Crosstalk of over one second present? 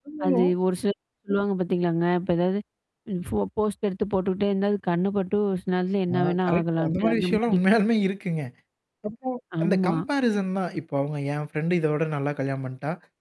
Yes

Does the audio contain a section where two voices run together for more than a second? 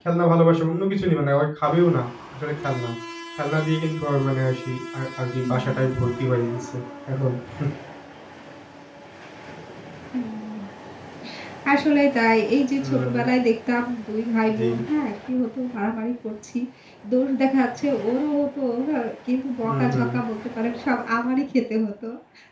No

